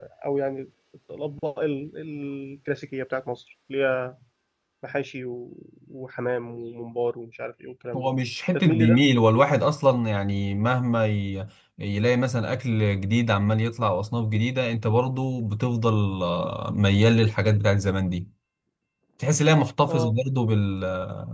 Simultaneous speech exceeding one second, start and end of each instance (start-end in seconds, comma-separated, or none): none